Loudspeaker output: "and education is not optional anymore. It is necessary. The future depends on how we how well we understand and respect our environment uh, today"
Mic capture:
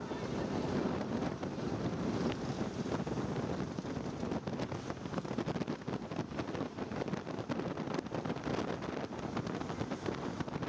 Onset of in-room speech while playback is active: none

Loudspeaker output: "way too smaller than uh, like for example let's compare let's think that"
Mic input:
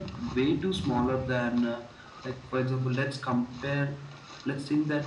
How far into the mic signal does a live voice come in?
none

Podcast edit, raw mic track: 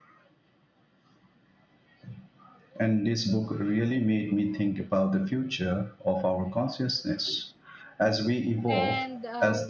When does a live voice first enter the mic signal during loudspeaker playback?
8.7 s

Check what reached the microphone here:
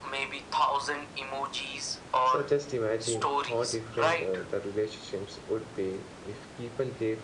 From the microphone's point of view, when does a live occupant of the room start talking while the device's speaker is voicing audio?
2.2 s

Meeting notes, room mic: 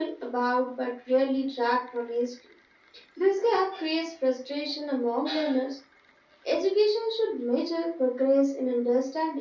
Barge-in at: none

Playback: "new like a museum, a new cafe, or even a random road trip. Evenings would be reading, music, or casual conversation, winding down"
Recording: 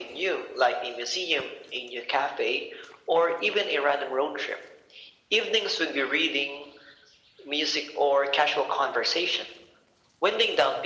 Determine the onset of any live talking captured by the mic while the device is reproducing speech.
none

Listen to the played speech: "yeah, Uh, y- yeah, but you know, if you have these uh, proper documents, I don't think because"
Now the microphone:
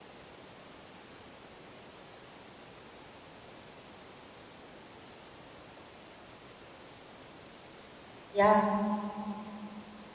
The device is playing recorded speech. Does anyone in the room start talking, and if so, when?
8.3 s

